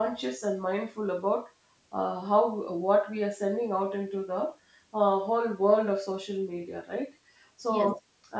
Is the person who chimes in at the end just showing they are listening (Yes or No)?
Yes